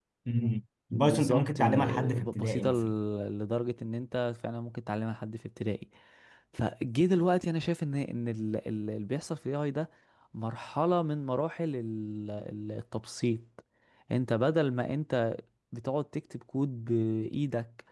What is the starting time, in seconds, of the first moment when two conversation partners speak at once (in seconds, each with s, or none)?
0.9 s